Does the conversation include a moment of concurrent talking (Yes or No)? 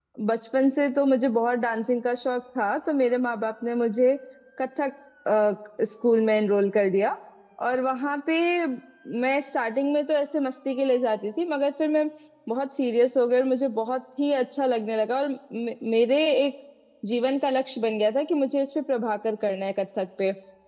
No